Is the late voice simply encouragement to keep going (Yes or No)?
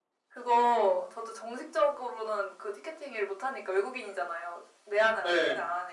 Yes